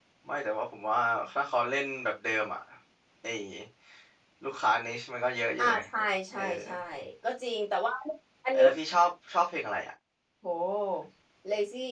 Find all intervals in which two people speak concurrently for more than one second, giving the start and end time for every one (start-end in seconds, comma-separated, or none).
none